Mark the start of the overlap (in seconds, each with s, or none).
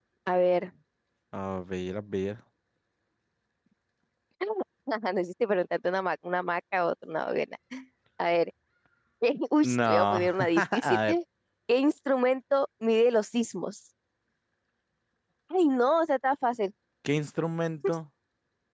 9.6 s